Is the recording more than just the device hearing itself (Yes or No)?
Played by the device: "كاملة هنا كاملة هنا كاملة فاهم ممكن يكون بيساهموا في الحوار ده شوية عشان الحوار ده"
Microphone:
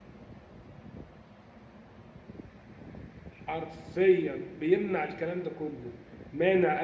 Yes